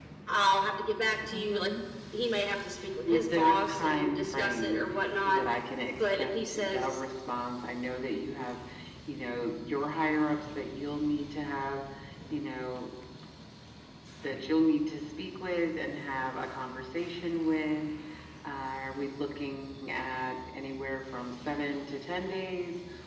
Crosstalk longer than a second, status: present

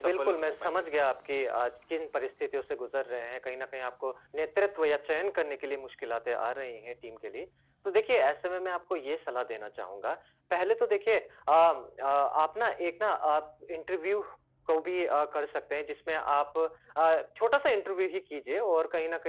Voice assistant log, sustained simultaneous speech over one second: present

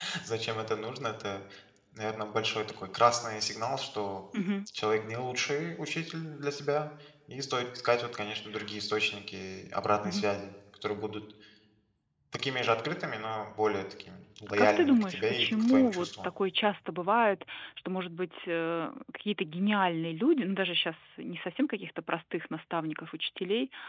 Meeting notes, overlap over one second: present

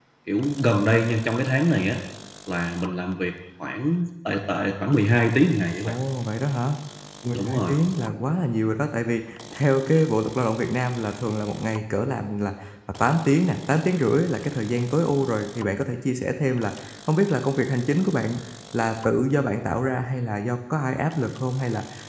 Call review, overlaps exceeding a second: none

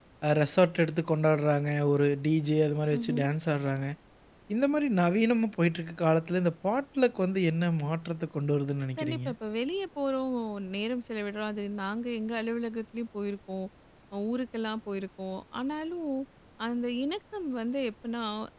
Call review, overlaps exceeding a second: none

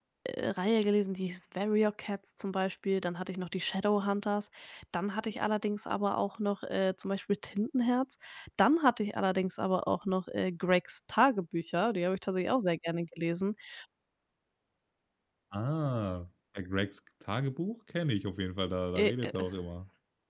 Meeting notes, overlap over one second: none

